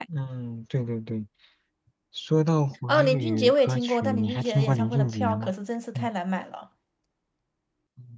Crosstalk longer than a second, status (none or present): present